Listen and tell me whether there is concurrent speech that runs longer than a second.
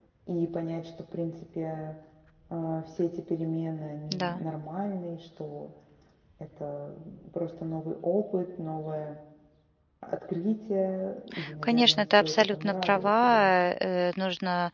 Yes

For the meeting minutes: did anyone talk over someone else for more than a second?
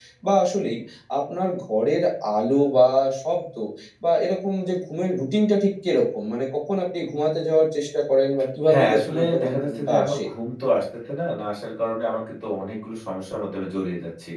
Yes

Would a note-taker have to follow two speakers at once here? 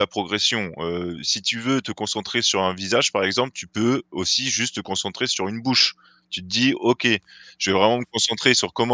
No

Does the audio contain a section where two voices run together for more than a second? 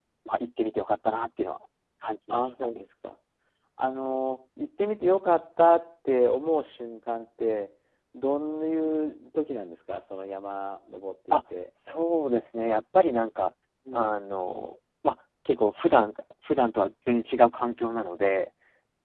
No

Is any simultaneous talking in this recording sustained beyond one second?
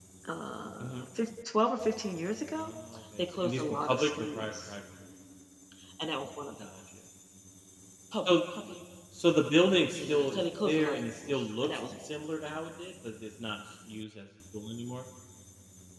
Yes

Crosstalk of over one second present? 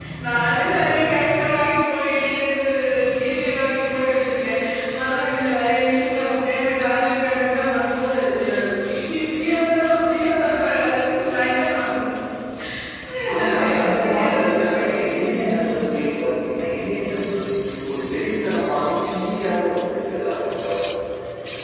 Yes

